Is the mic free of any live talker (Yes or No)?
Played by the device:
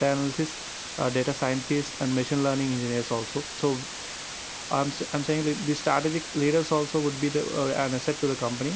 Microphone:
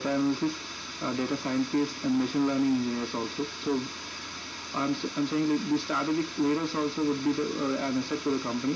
Yes